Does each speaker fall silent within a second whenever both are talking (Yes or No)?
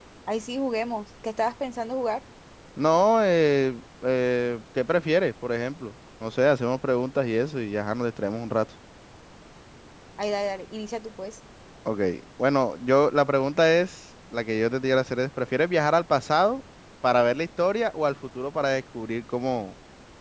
Yes